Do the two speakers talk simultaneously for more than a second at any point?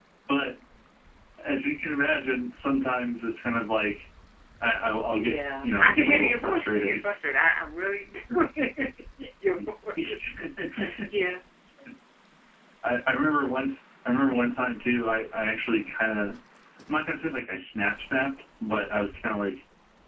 Yes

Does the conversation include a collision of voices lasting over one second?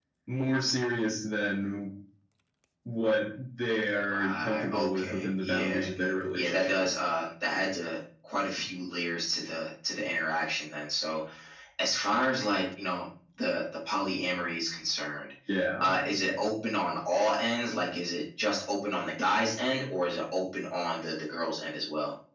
Yes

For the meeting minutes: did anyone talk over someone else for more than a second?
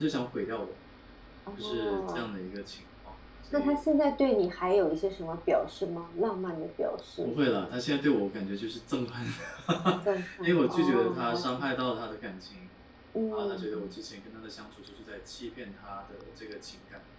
Yes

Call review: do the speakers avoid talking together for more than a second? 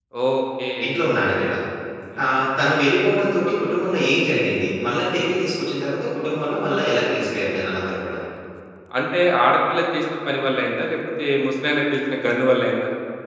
Yes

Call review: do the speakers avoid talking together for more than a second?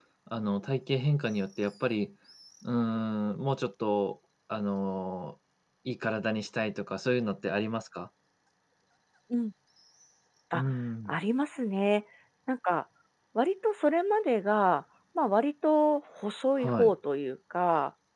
Yes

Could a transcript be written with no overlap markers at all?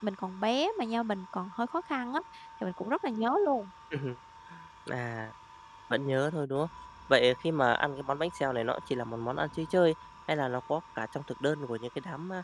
Yes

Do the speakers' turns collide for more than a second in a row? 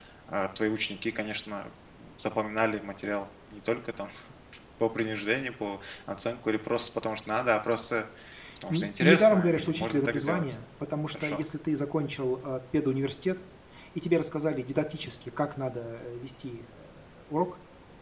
Yes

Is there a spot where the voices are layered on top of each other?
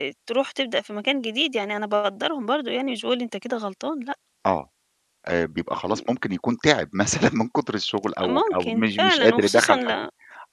Yes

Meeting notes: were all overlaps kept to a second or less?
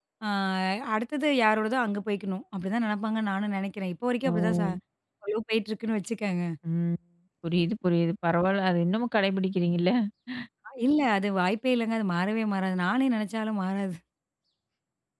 Yes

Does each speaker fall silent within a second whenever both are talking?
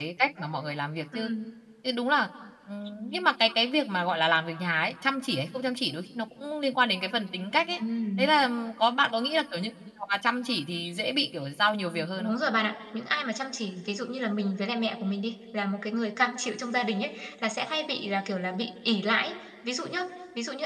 Yes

